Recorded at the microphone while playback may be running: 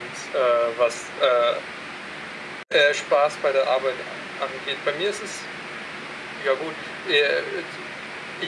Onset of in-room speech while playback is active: none

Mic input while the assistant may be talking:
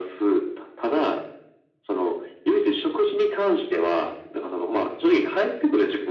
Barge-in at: none

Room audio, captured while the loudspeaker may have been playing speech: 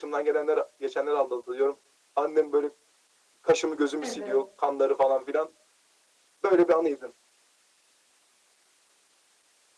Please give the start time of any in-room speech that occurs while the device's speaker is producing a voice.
4 s

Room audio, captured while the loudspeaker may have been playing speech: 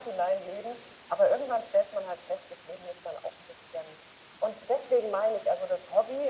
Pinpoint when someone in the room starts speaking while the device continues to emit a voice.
none

